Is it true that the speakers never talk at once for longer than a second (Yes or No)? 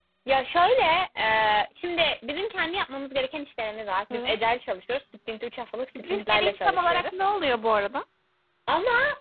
No